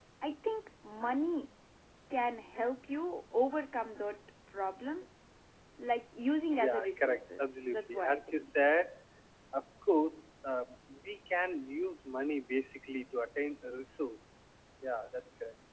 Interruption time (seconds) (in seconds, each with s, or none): 6.6 s